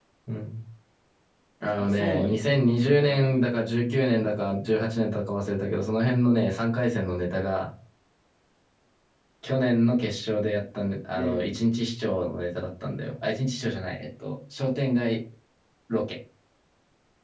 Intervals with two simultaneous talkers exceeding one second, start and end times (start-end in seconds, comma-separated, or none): 1.8-3.5